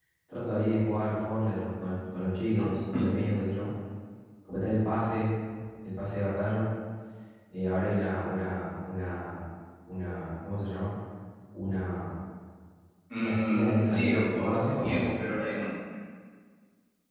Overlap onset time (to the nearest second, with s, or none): 13 s